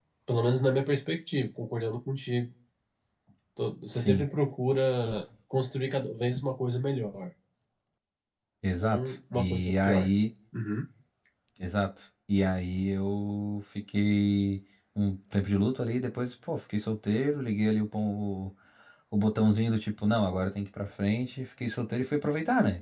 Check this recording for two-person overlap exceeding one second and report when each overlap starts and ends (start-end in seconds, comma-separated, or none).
8.8-10.1